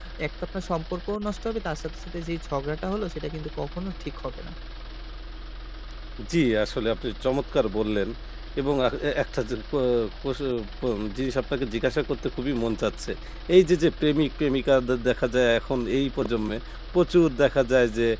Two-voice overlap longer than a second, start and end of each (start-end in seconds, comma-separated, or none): none